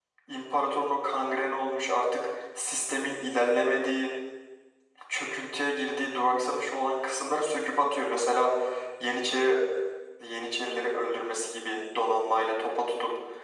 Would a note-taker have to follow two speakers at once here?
No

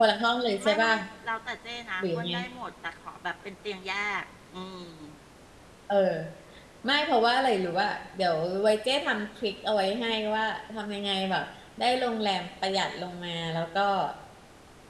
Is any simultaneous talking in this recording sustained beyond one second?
No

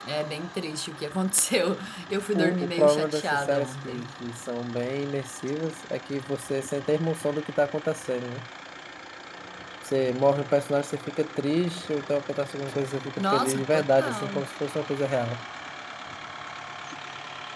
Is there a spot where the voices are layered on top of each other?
Yes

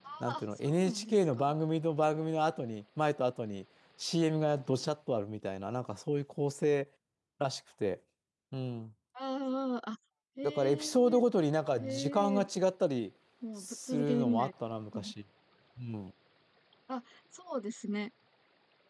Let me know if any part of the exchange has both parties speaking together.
Yes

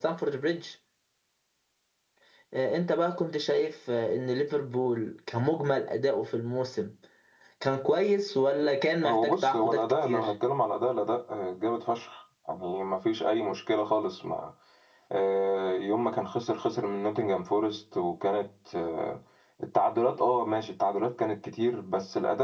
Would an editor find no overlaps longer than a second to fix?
No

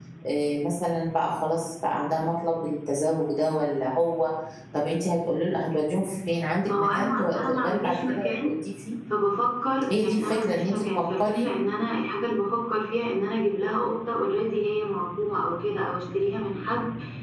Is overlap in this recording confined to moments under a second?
No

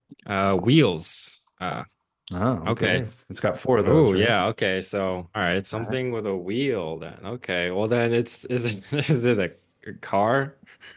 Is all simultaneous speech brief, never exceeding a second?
Yes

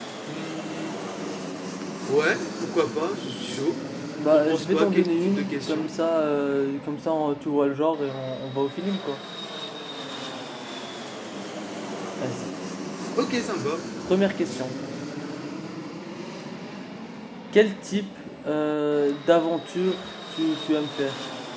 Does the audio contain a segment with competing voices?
Yes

